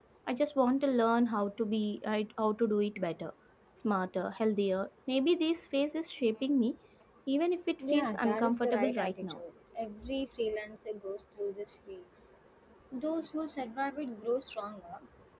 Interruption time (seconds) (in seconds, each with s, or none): 7.9 s